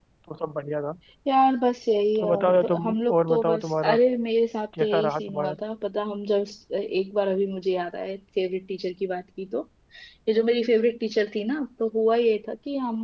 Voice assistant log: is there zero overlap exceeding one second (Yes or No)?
No